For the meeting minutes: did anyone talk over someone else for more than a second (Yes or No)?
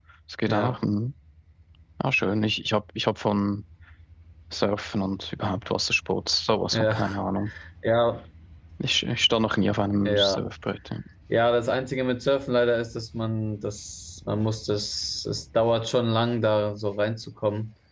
No